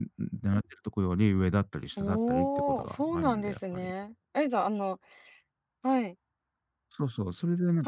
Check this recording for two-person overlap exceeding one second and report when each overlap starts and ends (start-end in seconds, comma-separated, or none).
2.0-3.9